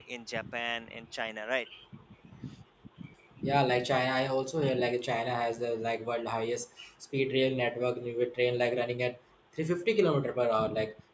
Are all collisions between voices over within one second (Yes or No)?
Yes